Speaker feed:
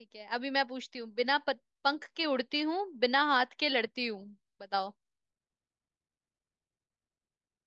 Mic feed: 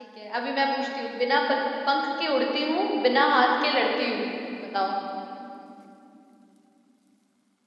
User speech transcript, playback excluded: none

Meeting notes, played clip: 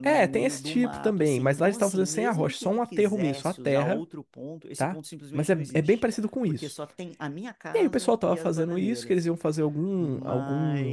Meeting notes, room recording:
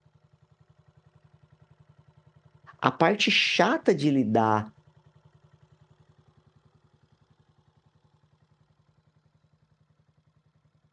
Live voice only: A parte chata de lidar

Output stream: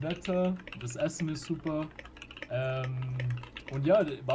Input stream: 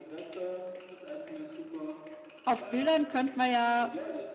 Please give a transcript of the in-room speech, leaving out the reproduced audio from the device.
auf Bildern könnte man ja,

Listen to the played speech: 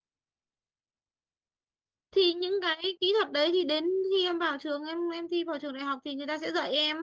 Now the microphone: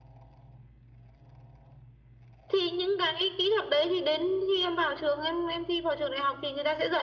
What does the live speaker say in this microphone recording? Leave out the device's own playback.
none

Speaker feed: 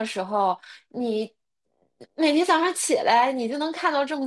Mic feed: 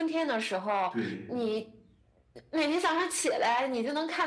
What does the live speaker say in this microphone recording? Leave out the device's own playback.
对，

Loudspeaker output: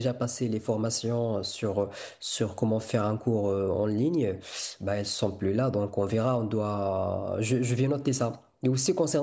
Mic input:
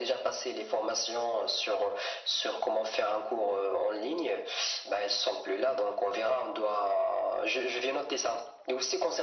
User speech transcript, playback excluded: none

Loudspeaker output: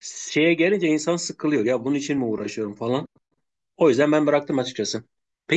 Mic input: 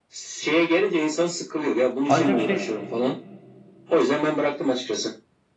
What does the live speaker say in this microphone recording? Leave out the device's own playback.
Ancak şey

